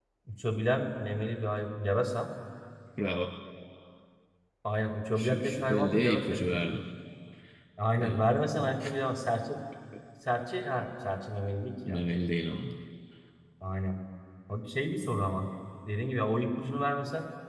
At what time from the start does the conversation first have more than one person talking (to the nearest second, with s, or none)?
5 s